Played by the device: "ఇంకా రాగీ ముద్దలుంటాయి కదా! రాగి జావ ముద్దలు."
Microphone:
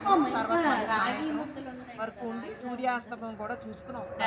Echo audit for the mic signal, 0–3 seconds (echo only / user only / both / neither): both